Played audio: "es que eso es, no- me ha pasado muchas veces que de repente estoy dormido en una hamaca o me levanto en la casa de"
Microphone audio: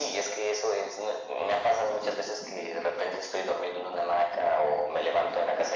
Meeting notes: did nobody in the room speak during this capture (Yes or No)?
Yes